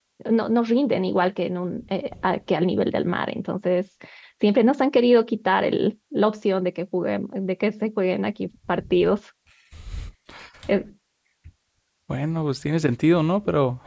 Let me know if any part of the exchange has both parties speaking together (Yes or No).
No